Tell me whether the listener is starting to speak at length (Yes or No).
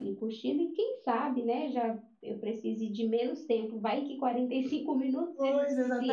Yes